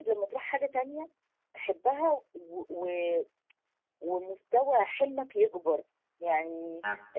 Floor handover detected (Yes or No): No